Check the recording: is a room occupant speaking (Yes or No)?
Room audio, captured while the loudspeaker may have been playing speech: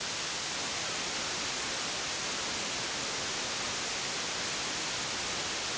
No